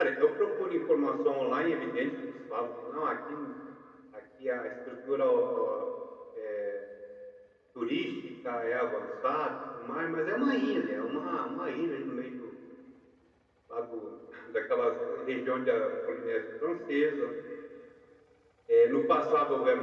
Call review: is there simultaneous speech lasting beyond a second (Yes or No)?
No